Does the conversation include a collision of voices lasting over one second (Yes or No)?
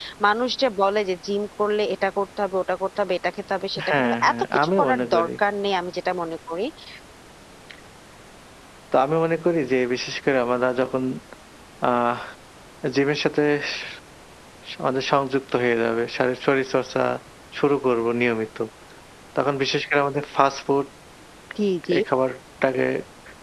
Yes